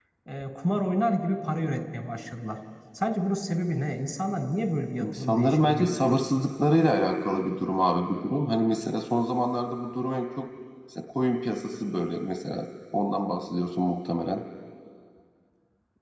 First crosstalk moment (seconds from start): 5.0 s

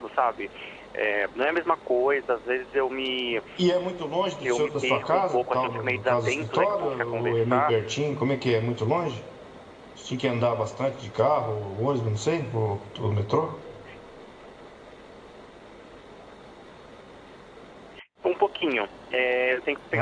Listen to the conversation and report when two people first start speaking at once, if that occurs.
4.4 s

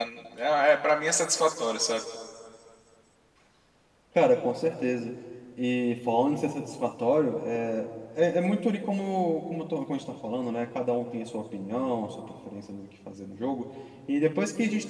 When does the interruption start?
none

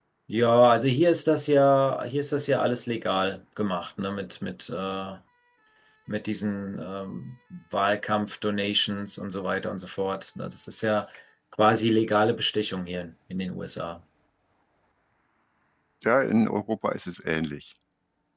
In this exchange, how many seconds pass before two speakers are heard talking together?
none

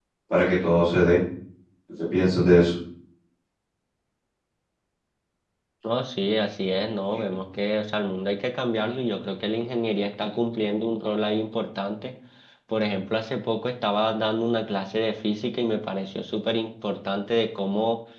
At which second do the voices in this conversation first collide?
none

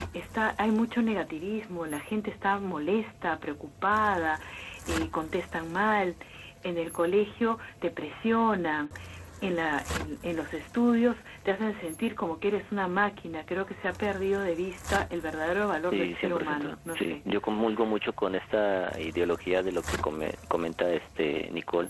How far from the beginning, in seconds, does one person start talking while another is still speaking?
15.9 s

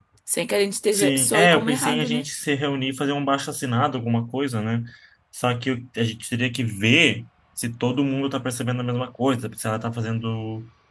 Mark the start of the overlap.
0.9 s

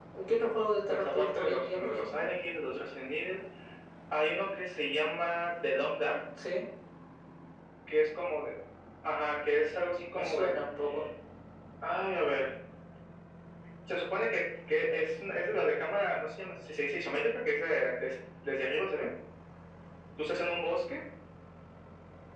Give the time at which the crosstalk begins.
0.9 s

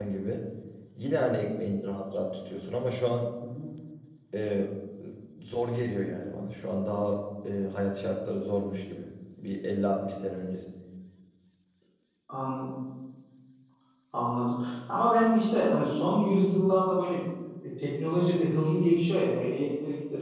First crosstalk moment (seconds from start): none

